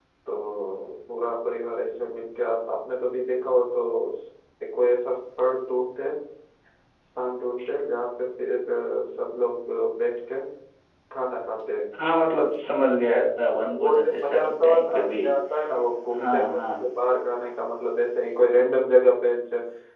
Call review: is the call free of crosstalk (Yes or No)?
No